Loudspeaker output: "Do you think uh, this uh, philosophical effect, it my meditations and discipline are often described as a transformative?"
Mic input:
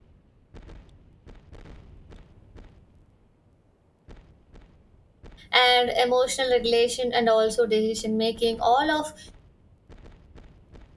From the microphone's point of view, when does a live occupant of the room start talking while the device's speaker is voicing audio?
5.5 s

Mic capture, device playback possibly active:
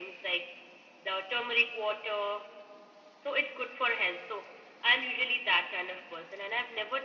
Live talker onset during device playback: none

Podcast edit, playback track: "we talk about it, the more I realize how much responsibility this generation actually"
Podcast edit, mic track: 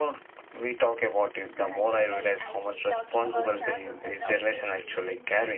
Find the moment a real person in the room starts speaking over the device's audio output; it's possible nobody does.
1.6 s

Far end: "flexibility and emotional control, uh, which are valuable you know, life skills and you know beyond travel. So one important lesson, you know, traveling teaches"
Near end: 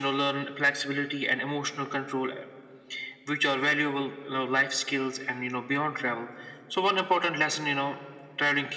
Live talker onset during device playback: none

